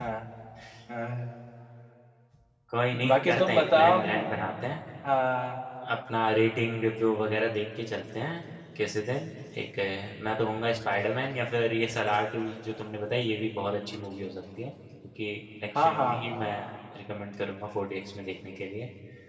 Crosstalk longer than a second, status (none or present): present